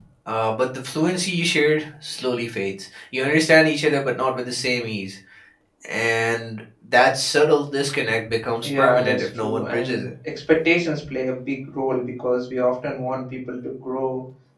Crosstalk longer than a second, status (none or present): present